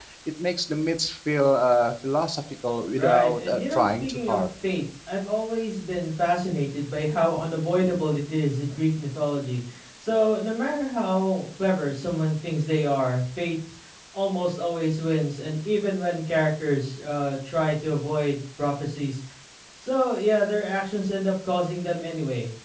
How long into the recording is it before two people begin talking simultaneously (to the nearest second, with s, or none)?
3 s